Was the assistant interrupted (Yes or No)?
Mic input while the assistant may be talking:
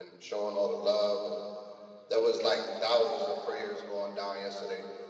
Yes